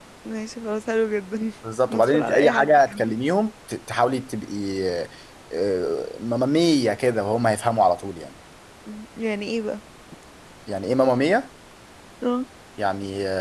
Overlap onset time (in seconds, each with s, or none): 1.9 s